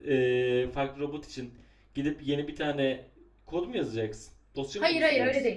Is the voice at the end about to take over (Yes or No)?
Yes